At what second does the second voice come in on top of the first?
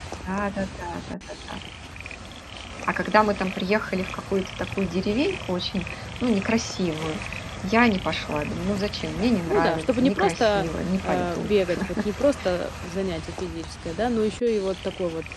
9.5 s

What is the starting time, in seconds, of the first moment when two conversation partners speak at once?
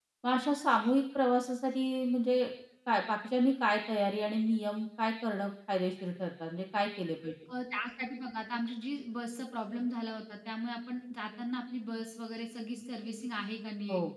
none

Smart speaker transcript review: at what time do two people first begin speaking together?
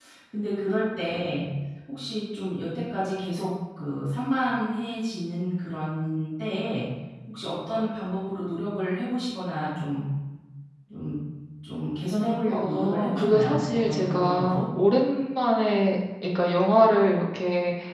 12.5 s

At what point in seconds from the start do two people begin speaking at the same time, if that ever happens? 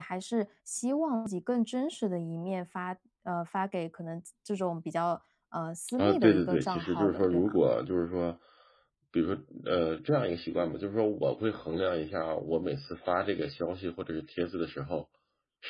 5.9 s

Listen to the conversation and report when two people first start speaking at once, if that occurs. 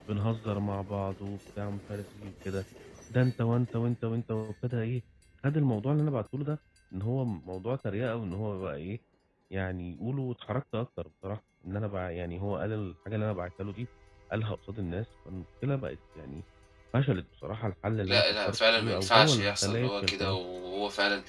18.1 s

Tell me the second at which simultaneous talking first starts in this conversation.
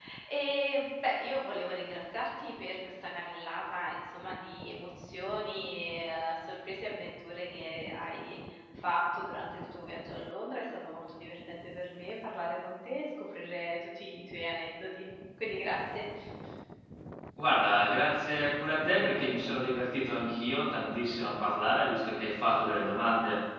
none

